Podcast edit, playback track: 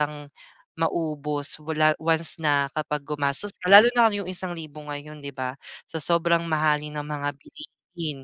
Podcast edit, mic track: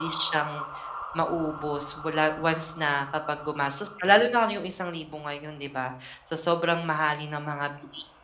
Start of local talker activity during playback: none

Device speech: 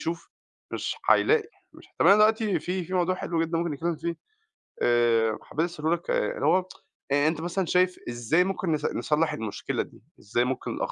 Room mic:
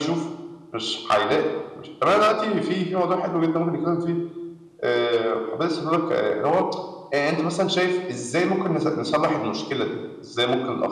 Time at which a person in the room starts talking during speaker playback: none

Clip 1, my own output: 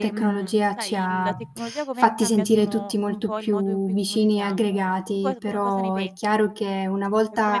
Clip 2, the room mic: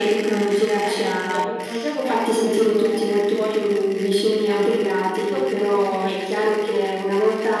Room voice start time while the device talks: none

